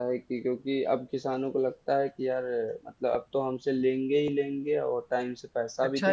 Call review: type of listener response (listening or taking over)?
taking over